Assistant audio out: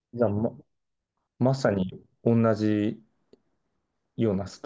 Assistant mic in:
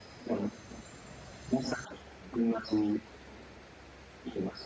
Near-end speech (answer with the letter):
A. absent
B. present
A